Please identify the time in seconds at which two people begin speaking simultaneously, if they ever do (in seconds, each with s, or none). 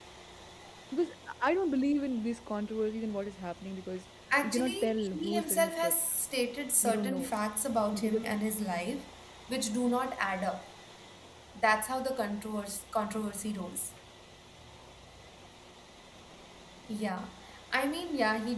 4.4 s